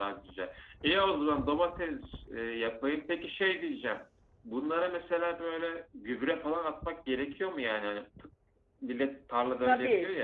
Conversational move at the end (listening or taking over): taking over